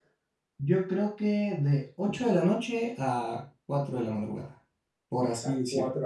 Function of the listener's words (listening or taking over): taking over